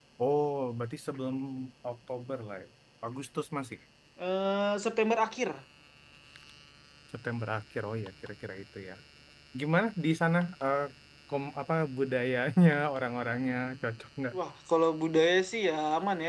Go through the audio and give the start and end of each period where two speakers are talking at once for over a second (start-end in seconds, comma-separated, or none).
none